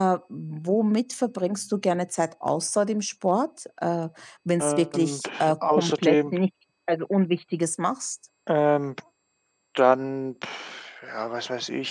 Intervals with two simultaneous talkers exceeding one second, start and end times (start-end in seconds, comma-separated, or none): 4.6-6.3